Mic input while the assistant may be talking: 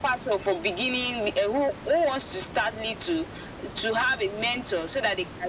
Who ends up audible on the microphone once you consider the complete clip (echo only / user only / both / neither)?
echo only